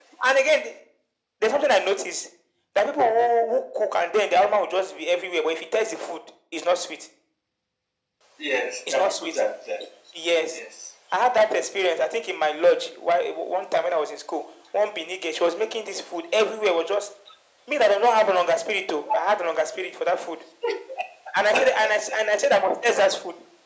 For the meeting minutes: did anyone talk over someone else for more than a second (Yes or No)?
No